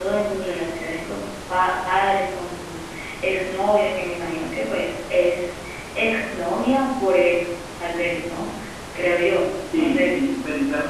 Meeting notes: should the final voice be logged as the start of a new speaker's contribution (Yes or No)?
Yes